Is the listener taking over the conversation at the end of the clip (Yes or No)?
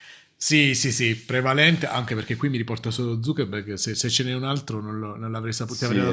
Yes